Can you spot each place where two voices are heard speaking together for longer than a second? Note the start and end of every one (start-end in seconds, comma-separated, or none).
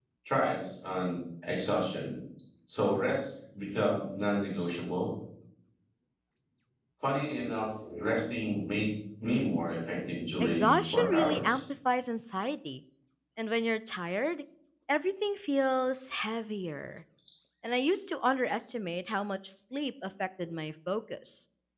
10.4-11.6